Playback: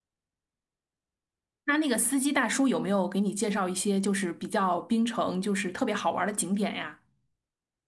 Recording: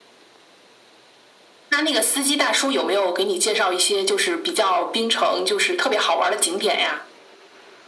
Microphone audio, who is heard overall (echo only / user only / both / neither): echo only